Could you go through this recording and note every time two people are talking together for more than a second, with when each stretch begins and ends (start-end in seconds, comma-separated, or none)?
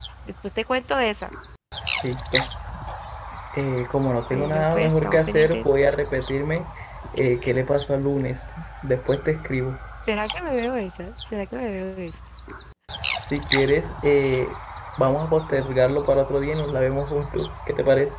4.3-5.6